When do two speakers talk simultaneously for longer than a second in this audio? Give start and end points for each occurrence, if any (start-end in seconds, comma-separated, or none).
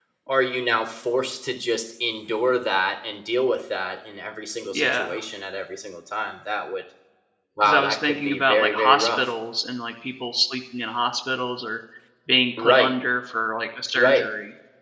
7.6-9.3